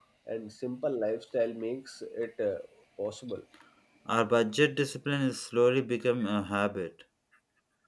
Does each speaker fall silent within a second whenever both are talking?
Yes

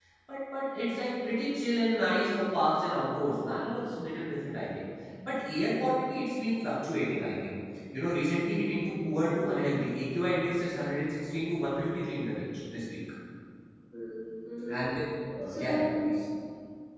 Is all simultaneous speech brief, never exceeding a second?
Yes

